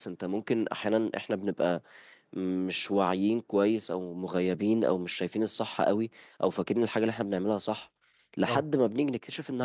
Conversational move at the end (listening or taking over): listening